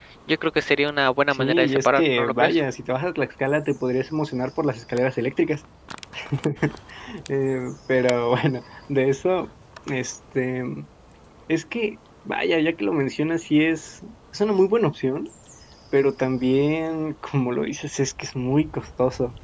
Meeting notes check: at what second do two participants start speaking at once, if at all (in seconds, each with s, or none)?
1.3 s